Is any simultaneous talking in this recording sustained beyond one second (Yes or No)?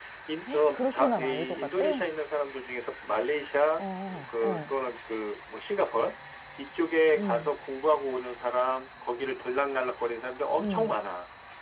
Yes